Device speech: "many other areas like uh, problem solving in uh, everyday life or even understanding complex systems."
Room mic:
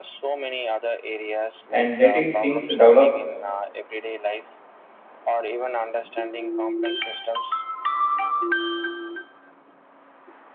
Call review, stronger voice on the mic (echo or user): user